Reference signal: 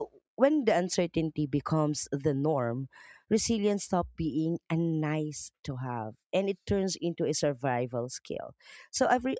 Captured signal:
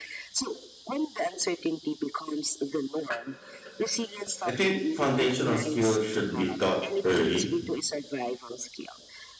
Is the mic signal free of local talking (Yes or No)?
No